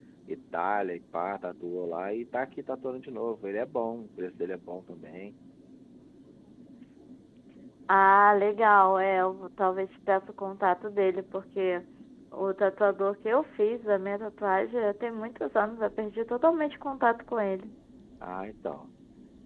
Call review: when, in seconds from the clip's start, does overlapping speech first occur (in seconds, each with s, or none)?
none